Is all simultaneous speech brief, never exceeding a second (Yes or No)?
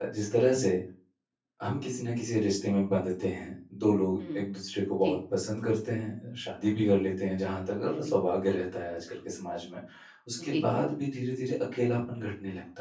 Yes